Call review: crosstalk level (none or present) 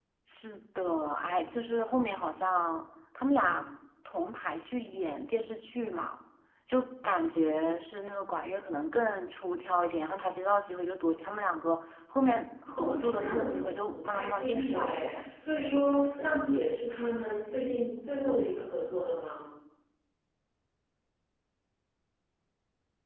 present